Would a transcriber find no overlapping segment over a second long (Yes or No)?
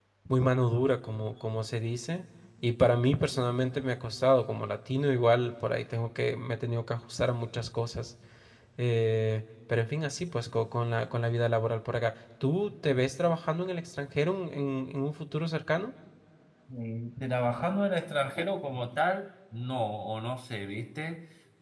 Yes